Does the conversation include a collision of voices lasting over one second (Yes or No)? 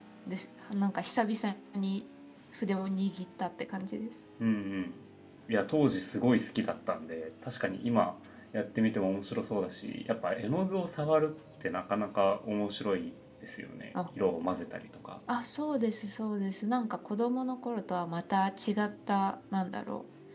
No